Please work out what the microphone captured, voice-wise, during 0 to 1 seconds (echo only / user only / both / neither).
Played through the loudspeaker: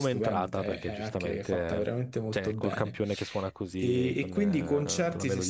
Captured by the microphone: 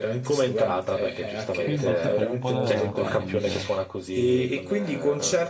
echo only